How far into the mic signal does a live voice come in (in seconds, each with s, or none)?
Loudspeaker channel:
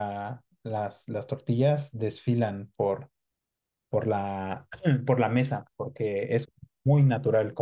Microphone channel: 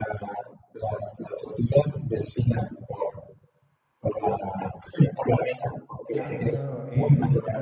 6.1 s